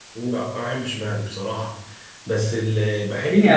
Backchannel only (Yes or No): No